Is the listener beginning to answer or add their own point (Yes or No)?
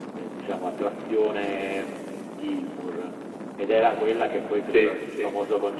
No